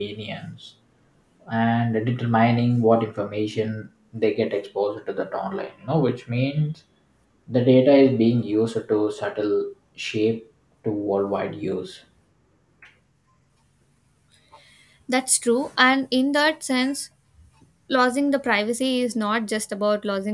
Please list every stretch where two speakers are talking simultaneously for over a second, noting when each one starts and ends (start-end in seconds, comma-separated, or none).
none